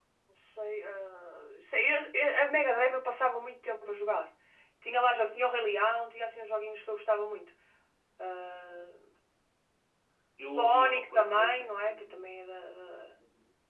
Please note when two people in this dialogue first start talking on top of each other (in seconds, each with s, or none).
10.4 s